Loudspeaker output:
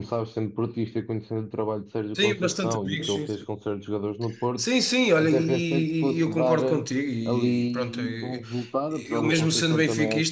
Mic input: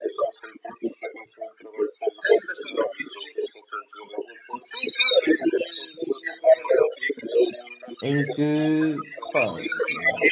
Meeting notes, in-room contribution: present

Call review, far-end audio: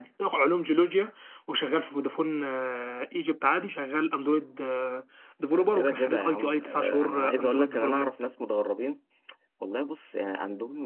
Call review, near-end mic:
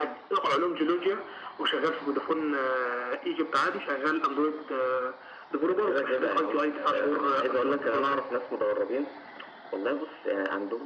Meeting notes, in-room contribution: none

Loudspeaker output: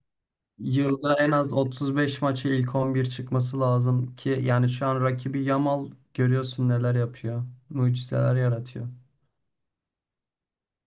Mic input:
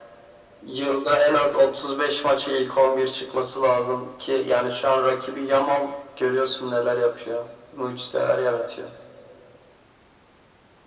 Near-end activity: none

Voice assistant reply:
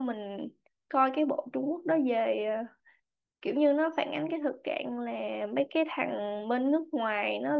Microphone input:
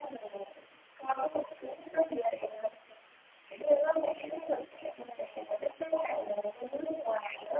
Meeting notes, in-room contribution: none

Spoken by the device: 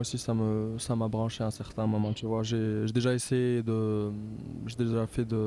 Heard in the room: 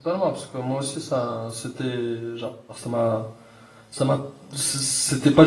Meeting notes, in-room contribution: present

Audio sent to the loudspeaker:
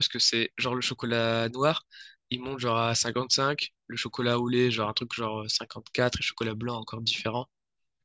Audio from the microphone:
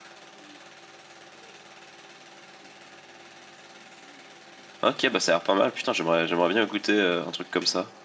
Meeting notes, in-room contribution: present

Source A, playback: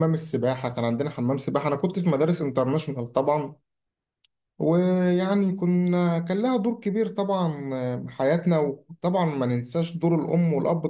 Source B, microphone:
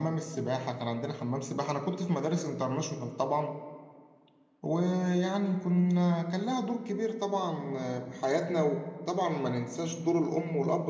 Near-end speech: none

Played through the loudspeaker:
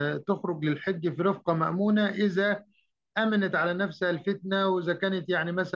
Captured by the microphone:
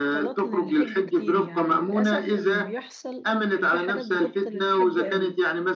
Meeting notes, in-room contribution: present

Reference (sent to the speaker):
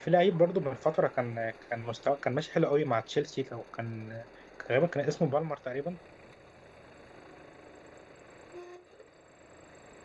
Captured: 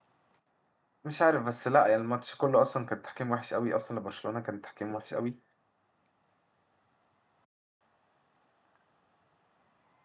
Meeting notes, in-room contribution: present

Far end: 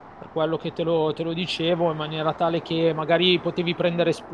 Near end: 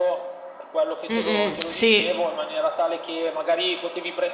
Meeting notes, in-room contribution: present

